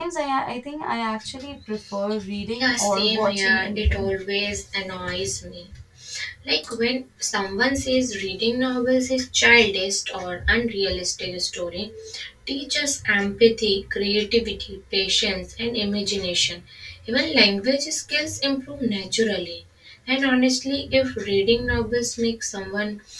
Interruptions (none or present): present